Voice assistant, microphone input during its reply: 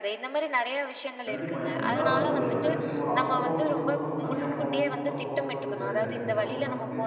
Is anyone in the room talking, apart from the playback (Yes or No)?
Yes